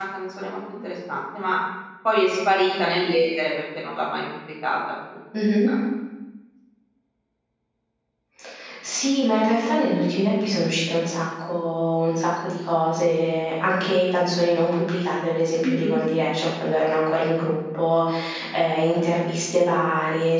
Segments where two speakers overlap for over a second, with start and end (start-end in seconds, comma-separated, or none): none